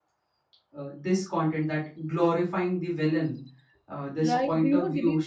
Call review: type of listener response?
taking over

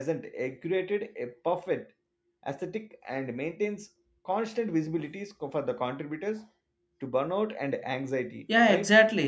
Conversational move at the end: taking over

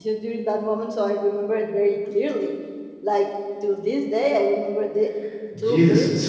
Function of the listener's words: taking over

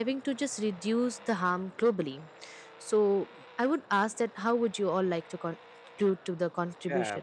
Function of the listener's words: taking over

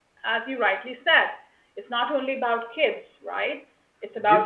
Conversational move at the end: taking over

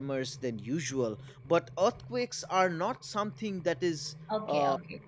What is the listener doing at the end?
taking over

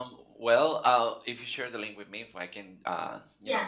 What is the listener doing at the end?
taking over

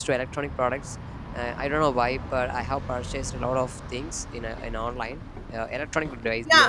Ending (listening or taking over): taking over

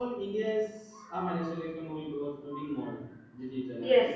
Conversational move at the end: taking over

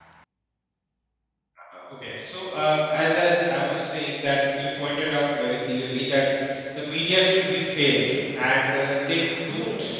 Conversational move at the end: listening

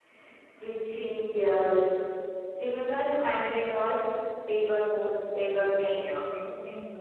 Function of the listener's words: taking over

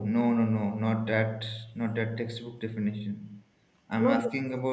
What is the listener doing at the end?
listening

